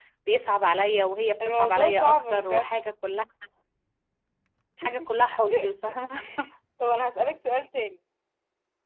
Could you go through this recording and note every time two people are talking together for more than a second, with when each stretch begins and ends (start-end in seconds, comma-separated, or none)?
1.4-2.7